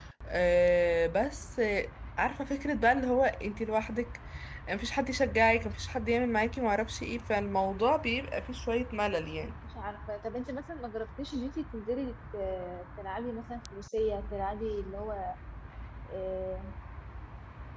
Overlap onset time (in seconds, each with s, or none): none